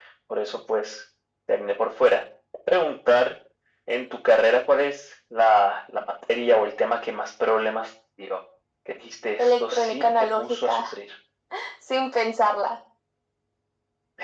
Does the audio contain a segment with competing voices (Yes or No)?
Yes